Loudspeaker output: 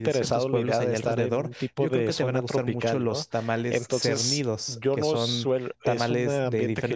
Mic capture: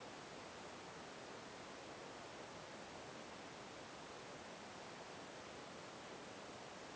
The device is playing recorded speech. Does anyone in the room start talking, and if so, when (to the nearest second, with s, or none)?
none